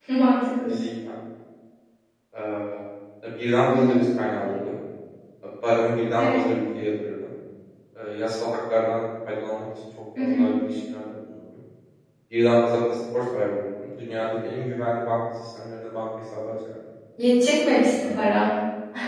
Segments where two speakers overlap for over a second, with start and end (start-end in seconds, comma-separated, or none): none